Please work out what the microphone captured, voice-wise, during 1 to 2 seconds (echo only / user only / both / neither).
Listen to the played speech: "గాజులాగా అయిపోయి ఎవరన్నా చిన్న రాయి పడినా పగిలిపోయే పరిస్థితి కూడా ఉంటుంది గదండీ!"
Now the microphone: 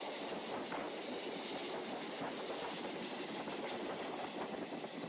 neither